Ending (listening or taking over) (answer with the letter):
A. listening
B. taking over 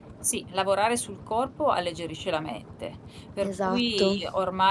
A